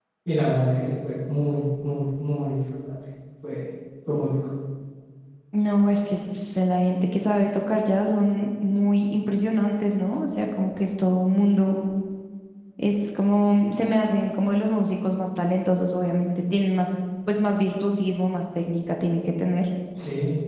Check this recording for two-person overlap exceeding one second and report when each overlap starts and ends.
none

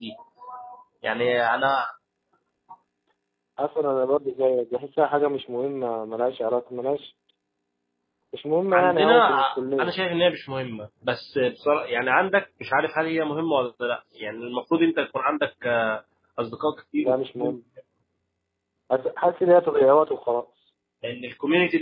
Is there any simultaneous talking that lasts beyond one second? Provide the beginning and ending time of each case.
8.7-10.0

